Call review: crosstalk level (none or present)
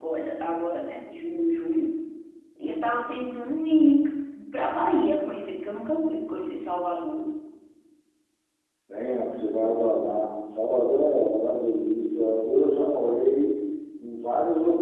none